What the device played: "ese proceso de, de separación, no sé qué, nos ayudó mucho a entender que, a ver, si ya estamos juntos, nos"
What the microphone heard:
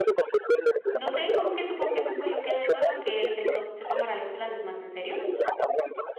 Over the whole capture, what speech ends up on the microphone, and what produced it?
both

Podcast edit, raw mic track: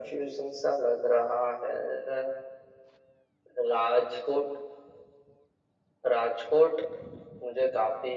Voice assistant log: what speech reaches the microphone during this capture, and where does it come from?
echo only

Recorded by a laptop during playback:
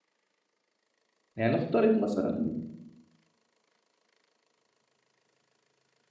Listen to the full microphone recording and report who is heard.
user only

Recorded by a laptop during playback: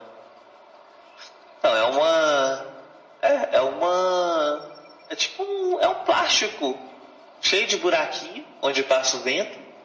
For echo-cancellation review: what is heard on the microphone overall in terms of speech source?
echo only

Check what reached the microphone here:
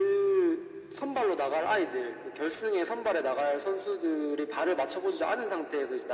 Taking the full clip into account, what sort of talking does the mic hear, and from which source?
echo only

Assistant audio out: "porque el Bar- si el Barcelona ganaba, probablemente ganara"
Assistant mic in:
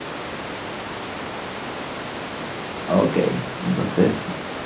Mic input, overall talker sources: user only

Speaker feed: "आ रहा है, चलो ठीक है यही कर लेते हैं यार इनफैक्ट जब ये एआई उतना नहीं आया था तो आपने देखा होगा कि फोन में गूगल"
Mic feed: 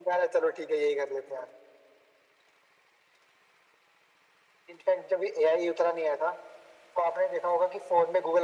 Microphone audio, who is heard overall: echo only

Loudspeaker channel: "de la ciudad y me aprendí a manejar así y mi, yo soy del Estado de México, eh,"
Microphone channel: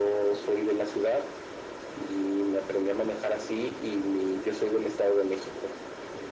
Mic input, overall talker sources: echo only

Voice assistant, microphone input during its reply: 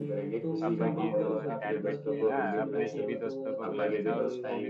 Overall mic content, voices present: both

